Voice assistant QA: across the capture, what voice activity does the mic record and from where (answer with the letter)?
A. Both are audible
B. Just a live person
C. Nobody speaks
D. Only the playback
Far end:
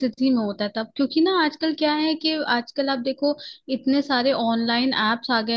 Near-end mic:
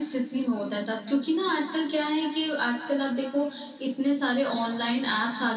D